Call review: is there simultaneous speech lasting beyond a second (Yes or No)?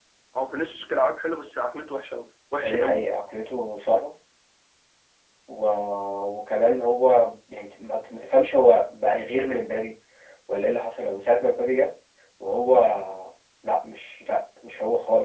No